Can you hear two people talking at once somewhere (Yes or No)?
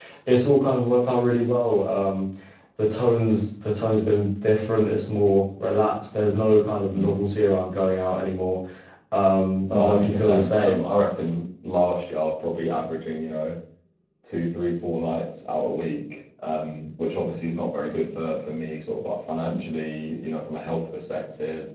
Yes